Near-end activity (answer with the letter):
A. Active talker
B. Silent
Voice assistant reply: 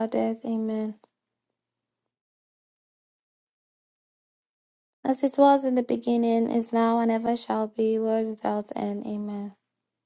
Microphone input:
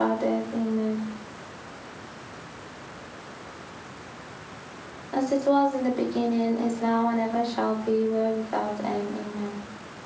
B